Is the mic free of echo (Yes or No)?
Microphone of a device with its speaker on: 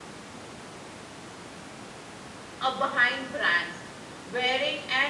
Yes